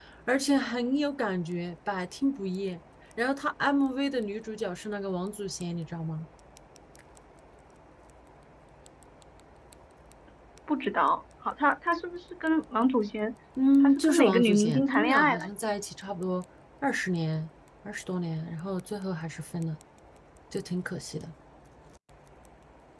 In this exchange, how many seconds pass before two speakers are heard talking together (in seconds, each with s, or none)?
13.8 s